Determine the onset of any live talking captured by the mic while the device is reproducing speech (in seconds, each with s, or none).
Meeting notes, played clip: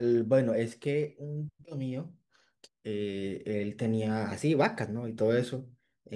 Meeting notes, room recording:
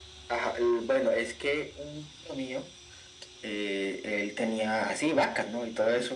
none